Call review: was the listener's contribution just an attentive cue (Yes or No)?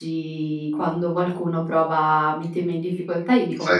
Yes